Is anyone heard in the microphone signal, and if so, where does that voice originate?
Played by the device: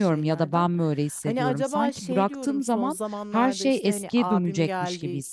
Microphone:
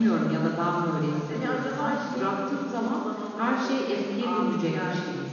echo only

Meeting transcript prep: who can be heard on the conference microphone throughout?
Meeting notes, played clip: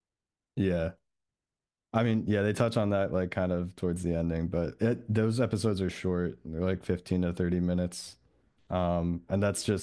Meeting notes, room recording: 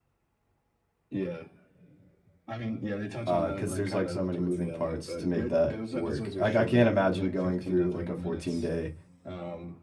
both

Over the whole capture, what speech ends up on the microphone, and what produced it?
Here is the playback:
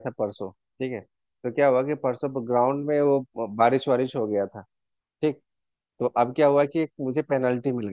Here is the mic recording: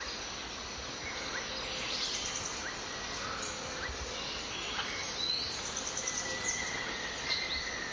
neither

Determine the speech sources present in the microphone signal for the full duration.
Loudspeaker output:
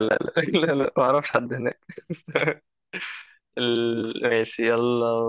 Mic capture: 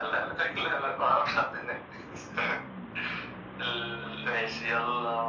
echo only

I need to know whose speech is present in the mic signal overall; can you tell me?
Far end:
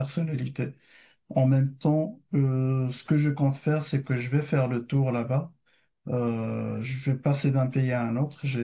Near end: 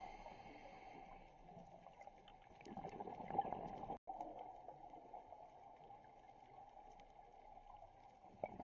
neither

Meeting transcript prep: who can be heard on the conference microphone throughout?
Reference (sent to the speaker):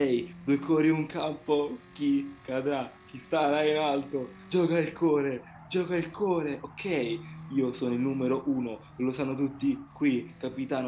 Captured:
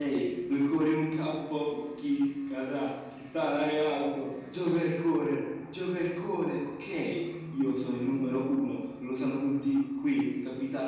echo only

